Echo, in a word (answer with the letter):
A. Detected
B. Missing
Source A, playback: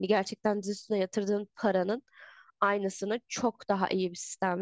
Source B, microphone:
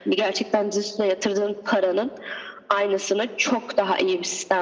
A